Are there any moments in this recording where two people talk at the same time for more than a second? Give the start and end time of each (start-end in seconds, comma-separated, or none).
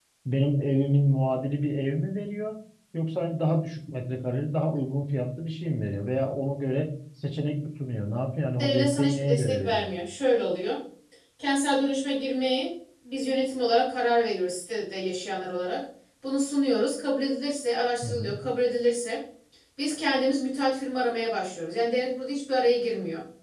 8.6-9.9